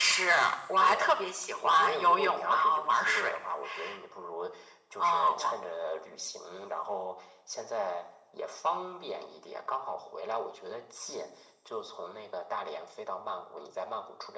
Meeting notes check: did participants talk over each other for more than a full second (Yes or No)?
Yes